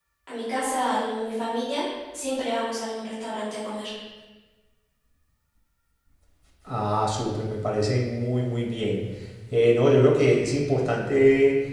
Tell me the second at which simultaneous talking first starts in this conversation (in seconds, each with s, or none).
none